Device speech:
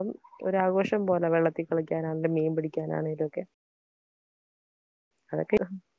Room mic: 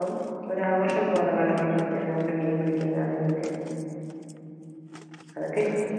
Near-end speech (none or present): present